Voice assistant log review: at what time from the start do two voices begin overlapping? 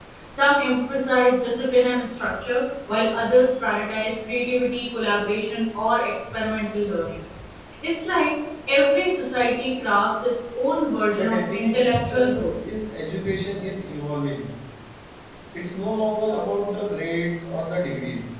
11.1 s

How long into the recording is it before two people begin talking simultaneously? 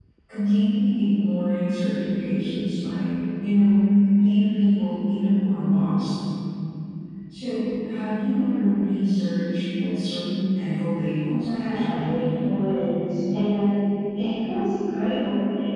11.3 s

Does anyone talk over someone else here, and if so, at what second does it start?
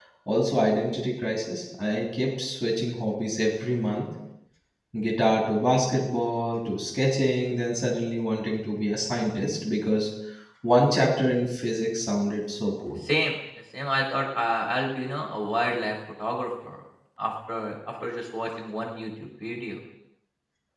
none

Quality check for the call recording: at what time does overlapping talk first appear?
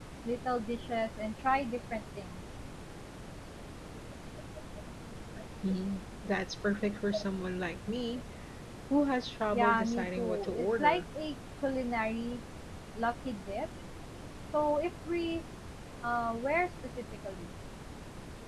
9.5 s

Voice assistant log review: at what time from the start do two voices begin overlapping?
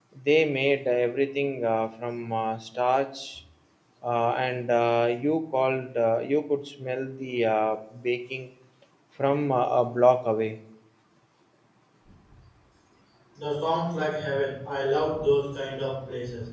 none

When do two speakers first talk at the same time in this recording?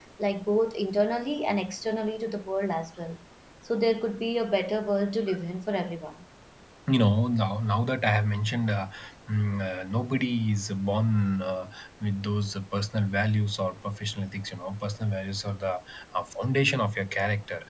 none

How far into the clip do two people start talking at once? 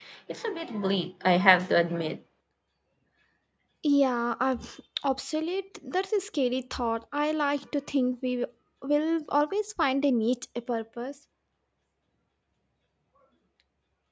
none

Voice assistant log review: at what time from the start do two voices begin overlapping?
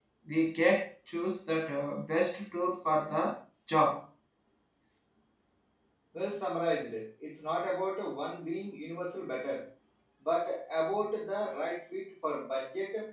none

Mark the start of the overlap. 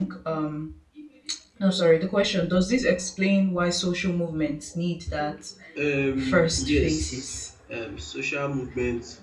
6.2 s

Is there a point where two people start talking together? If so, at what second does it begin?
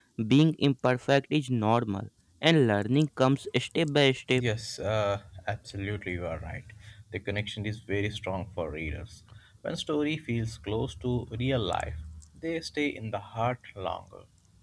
none

